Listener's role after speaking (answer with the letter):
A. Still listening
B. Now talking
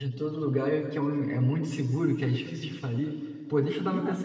A